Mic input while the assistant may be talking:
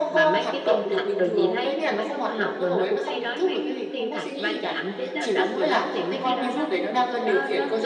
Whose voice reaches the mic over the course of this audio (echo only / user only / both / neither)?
echo only